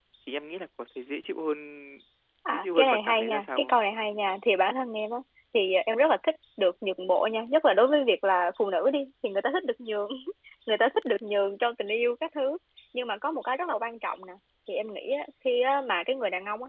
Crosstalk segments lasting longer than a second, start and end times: 2.5-3.8

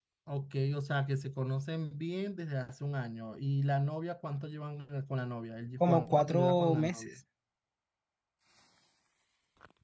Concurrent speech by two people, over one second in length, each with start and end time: 5.8-7.0

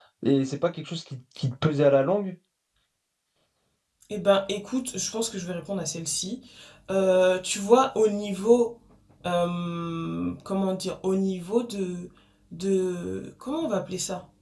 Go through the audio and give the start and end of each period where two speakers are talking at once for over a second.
none

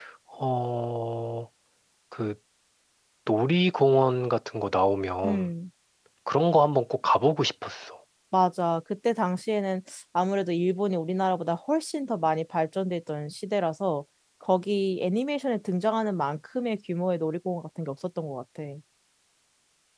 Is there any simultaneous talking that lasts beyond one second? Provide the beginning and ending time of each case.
none

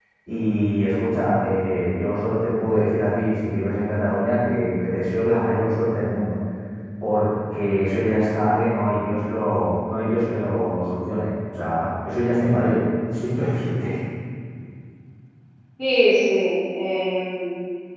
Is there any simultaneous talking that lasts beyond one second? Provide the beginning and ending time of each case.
none

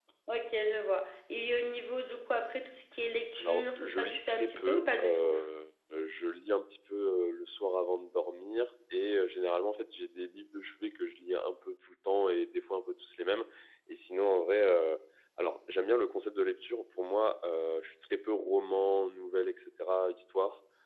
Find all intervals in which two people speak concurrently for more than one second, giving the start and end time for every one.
3.4-5.3

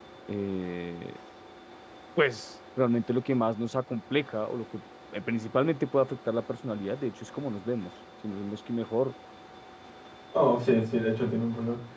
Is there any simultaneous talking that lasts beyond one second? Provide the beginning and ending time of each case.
none

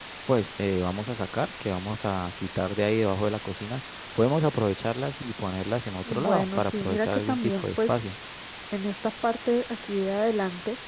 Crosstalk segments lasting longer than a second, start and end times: 6.0-8.0

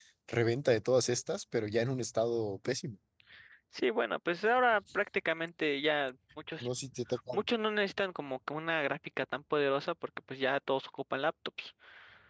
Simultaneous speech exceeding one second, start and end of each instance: none

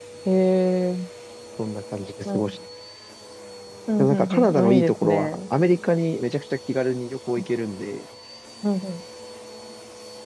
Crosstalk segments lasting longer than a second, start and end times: 4.0-5.4

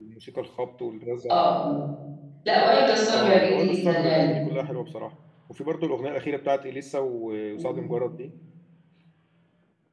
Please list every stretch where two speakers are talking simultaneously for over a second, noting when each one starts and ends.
3.1-4.4

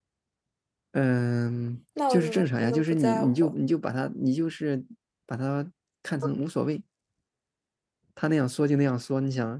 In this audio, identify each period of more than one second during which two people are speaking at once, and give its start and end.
2.1-3.5

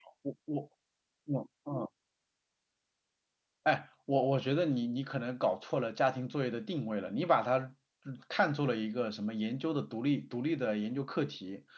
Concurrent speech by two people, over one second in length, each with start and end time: none

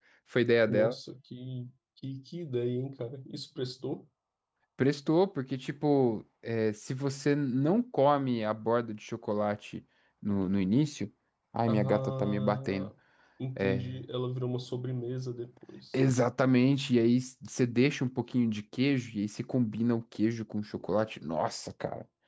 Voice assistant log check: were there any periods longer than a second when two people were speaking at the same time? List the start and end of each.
11.7-12.9

